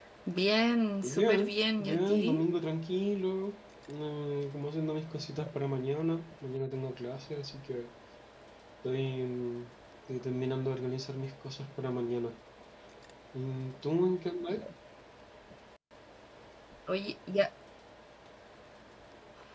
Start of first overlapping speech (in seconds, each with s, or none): 1.0 s